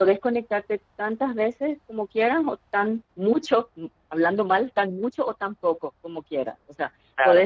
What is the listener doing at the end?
listening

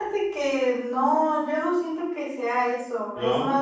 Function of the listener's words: listening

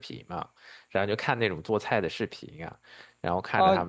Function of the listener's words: taking over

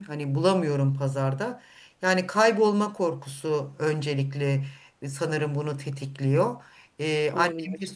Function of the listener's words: listening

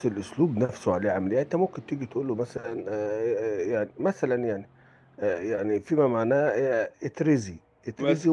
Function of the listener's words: listening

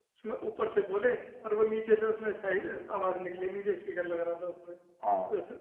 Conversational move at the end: listening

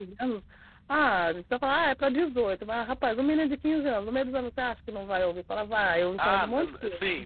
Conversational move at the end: taking over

